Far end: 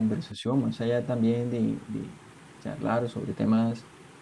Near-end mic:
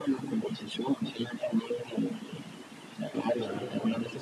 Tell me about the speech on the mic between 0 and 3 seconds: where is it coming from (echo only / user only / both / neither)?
echo only